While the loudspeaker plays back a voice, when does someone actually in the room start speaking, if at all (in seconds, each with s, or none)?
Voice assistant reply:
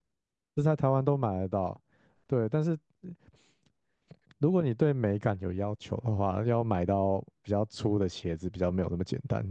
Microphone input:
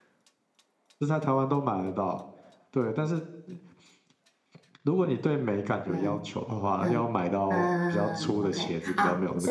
5.8 s